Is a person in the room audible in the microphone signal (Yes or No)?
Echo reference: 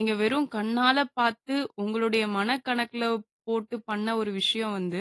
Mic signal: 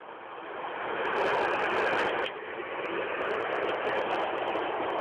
No